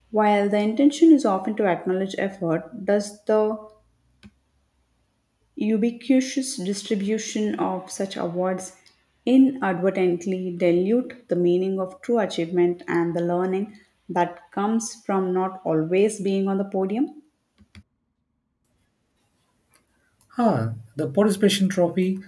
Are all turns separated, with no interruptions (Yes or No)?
Yes